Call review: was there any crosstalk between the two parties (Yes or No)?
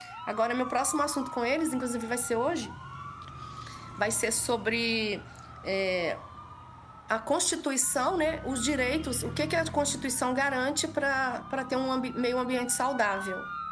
No